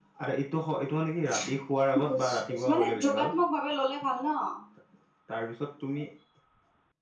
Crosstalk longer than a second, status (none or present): present